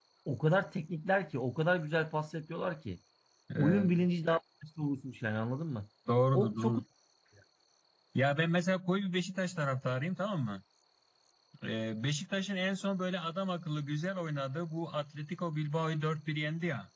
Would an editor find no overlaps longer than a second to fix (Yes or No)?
Yes